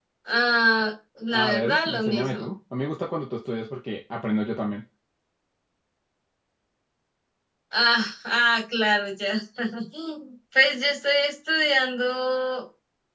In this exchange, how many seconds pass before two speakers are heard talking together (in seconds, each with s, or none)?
1.3 s